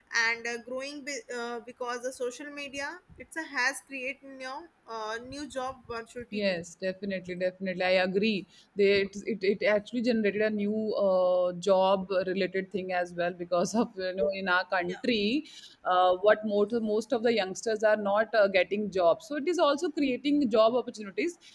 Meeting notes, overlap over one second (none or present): none